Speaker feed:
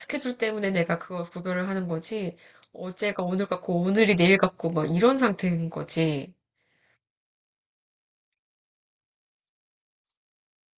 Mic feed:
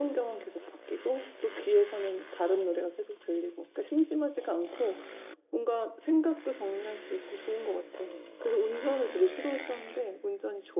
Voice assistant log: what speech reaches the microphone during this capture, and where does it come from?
user only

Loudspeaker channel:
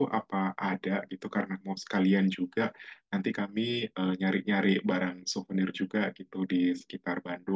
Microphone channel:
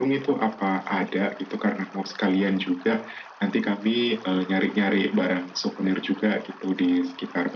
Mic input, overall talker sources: echo only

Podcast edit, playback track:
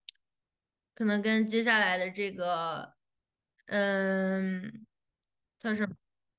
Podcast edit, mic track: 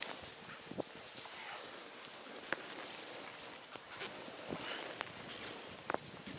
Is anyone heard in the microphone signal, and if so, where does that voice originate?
neither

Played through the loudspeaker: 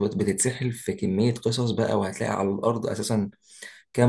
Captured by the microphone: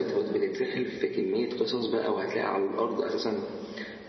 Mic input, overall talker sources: echo only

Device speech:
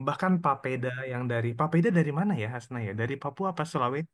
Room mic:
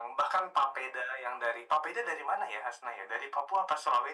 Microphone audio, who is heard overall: echo only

